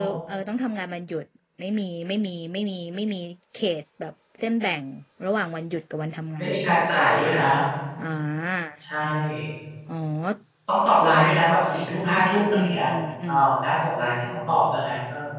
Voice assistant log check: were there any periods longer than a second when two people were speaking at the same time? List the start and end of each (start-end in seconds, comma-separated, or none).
none